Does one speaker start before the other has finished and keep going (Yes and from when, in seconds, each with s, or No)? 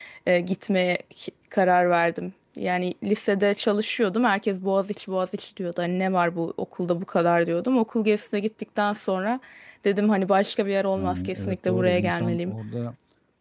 Yes, from 10.9 s